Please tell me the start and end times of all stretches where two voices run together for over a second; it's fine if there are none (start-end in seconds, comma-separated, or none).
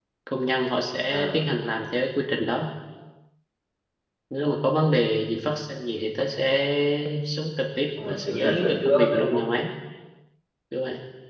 8.1-9.4